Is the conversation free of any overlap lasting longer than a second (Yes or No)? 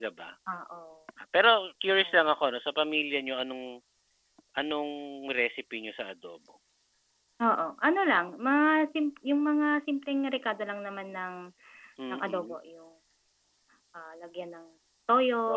Yes